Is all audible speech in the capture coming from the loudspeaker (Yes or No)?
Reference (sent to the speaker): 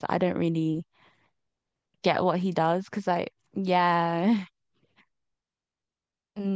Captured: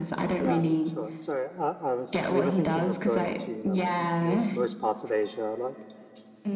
No